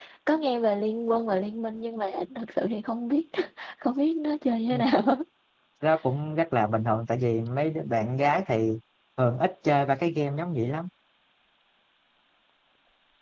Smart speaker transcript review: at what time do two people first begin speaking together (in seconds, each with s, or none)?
none